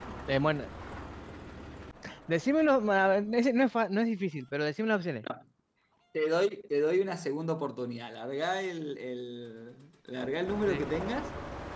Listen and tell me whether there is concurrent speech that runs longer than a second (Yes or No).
No